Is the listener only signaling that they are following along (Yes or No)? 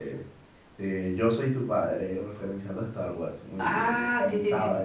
No